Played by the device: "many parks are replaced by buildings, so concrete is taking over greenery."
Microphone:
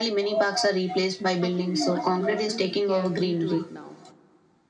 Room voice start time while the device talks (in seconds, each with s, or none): 1.4 s